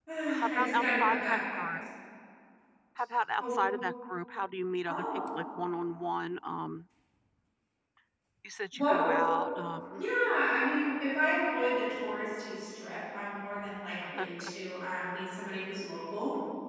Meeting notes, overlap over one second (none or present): present